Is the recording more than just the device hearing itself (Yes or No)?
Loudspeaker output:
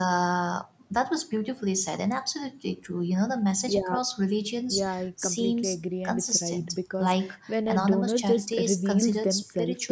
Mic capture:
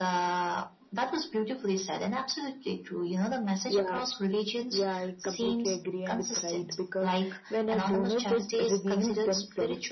No